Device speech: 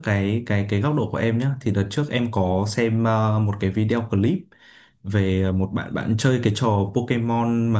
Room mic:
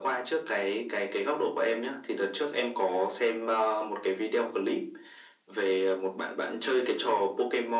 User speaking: No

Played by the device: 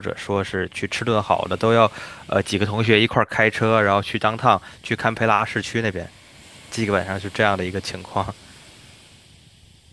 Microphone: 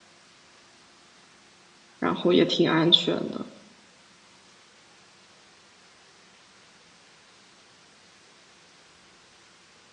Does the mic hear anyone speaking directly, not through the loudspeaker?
Yes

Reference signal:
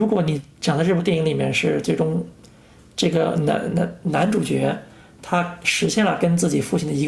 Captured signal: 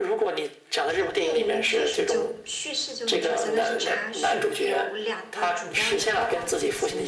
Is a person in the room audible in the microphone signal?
Yes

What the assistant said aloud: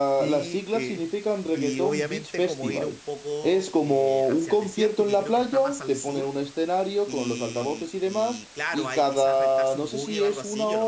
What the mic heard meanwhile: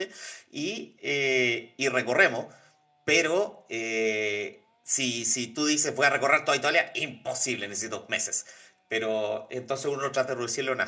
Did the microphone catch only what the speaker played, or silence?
No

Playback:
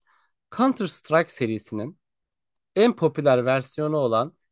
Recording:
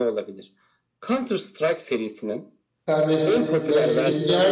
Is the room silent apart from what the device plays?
No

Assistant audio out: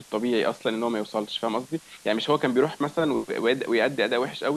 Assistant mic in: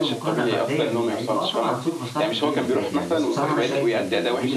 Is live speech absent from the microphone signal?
No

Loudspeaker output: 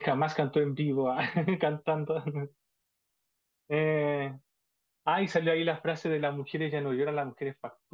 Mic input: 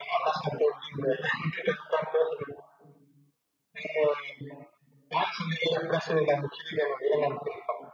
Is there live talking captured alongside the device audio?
No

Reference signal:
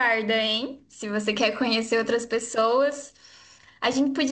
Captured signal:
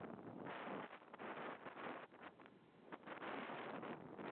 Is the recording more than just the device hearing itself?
No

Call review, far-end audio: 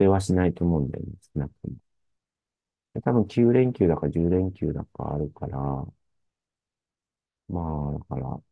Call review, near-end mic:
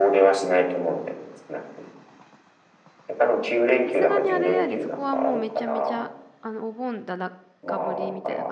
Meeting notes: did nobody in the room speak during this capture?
No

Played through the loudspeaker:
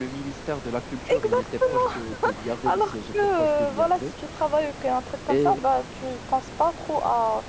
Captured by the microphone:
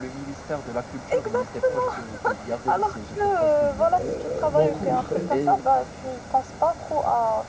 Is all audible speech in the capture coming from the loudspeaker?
No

